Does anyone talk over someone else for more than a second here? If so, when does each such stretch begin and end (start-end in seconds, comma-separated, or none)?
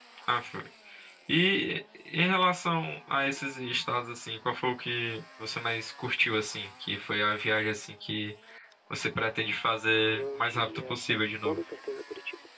10.1-11.6